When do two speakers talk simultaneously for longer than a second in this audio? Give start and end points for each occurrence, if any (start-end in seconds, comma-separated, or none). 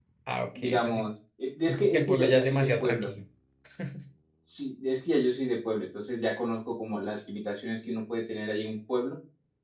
1.7-3.1